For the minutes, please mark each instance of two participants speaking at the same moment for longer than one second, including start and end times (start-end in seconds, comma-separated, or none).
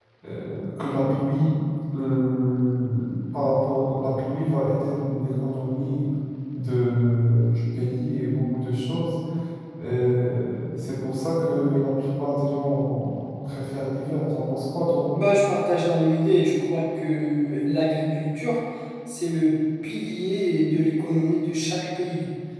none